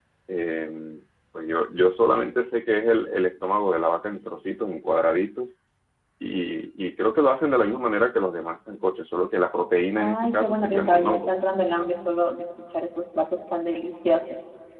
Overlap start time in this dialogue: 10.0 s

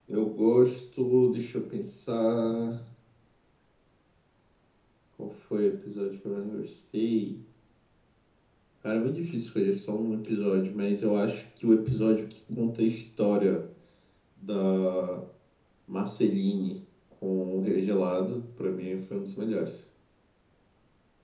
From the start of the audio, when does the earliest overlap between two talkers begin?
none

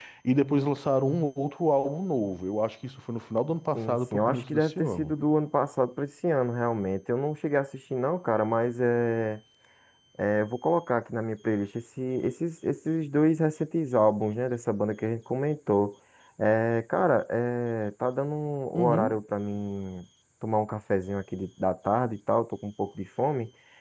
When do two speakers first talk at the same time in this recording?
3.7 s

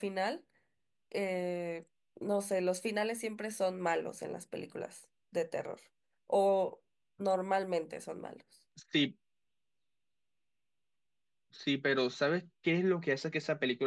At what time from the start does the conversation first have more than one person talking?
none

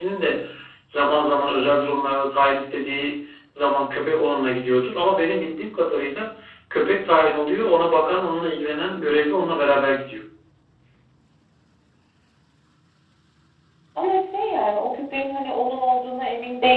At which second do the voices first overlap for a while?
none

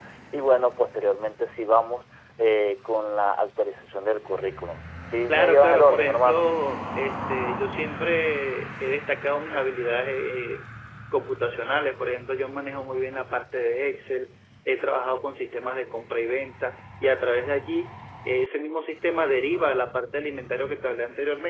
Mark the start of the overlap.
5.3 s

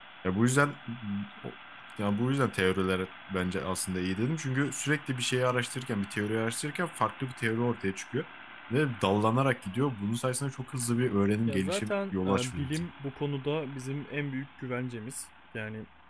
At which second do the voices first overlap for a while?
11.5 s

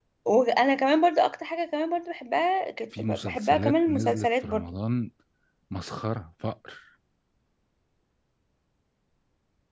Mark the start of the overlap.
2.9 s

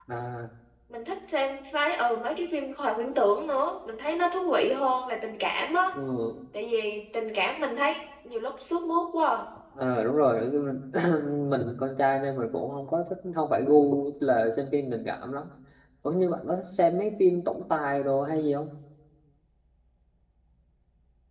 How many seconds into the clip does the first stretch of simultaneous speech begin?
none

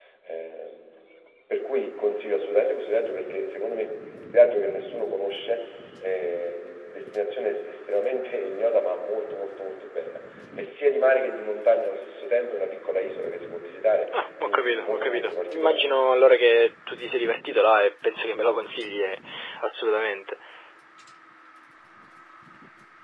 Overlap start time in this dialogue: 14.4 s

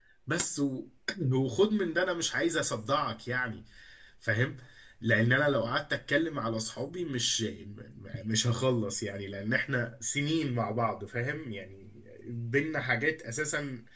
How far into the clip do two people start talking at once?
none

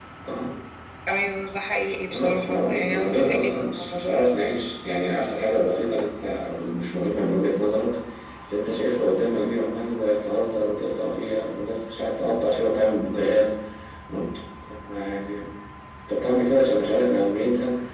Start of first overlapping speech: 2.1 s

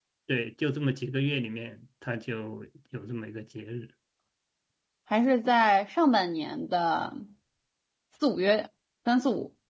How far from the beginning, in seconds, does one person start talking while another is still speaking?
none

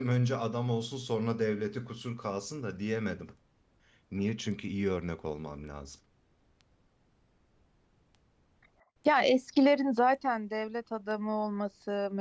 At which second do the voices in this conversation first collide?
none

